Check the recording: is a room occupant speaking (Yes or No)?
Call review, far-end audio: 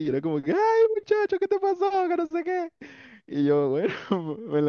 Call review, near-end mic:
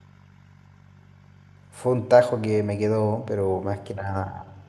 Yes